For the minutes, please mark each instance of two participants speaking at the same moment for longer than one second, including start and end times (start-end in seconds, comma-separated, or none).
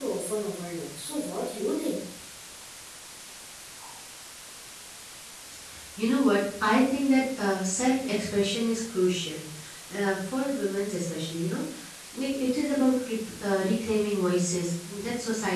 none